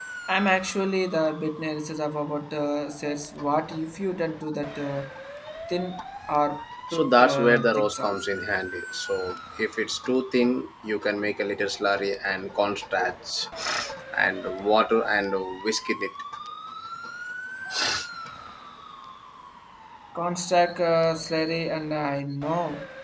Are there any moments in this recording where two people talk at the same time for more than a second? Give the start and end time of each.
6.9-8.3

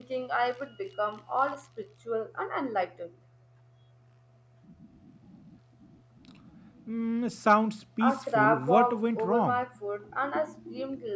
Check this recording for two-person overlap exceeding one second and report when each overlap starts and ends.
8.0-9.6

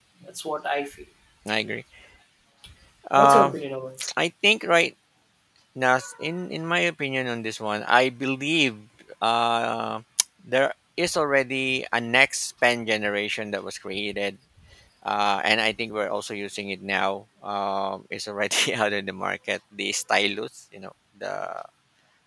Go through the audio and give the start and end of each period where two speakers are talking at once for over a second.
none

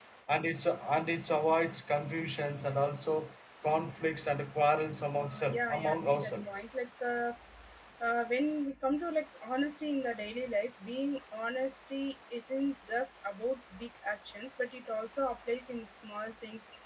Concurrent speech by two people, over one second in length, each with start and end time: 5.2-6.7

